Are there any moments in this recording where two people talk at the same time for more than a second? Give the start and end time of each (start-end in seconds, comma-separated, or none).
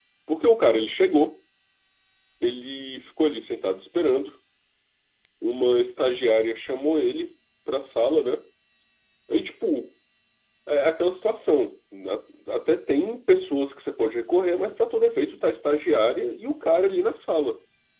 none